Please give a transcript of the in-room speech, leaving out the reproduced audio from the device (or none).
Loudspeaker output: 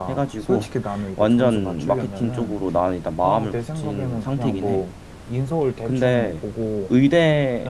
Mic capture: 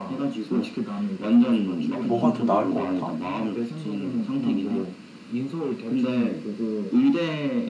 뭐가 더 나을 것 같아?